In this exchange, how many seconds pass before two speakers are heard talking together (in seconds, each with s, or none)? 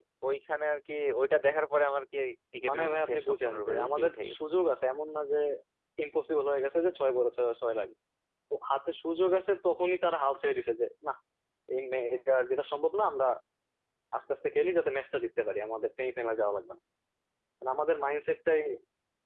2.6 s